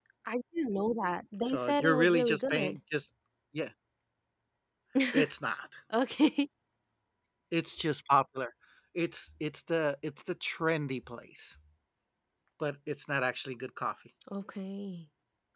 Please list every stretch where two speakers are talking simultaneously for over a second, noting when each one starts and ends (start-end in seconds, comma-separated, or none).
1.5-2.8